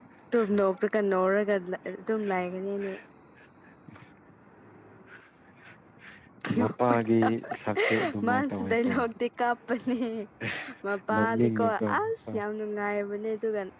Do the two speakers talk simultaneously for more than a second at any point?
Yes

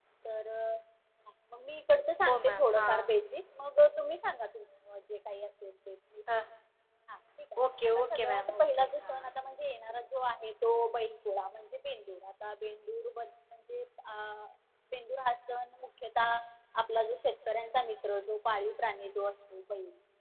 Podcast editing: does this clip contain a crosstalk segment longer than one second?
Yes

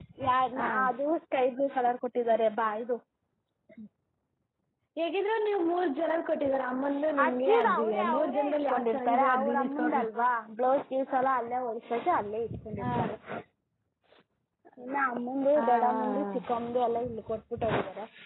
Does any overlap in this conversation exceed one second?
Yes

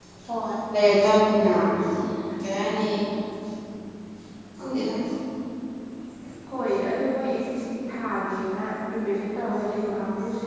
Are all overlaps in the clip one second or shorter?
Yes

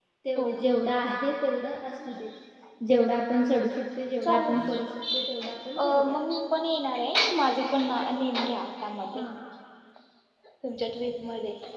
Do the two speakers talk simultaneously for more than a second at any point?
No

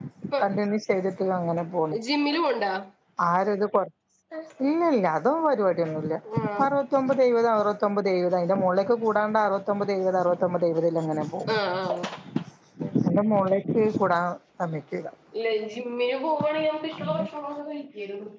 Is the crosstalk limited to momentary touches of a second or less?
Yes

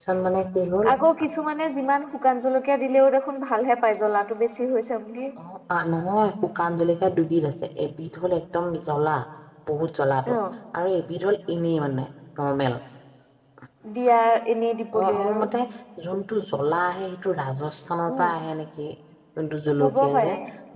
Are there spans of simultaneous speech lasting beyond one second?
No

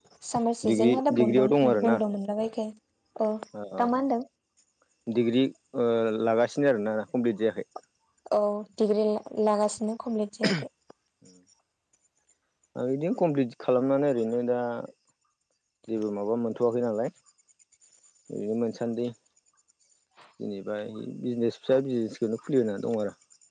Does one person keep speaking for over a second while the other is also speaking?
Yes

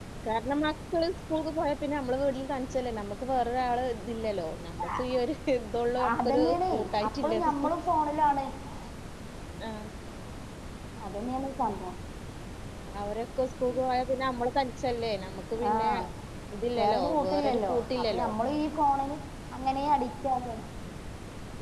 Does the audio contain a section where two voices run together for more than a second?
Yes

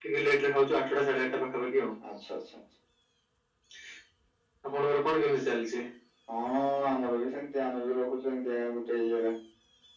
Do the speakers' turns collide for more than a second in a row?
No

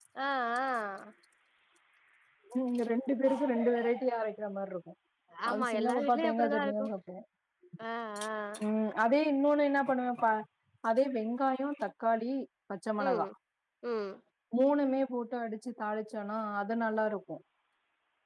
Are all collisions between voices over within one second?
No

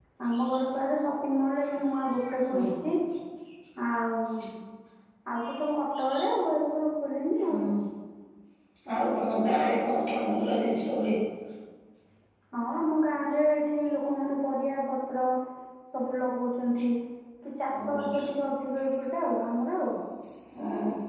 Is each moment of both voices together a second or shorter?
Yes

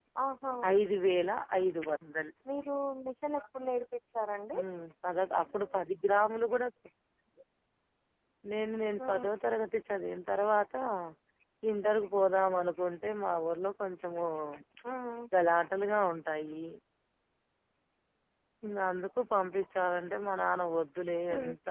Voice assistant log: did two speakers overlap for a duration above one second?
No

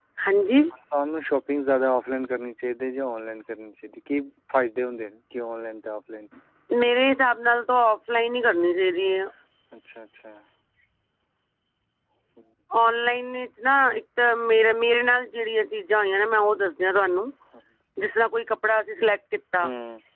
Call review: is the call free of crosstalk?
Yes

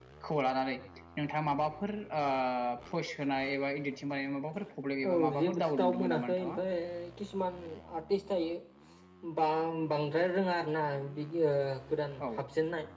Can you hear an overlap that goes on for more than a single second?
Yes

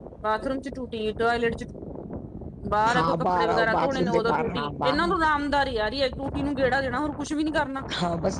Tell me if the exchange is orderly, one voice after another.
No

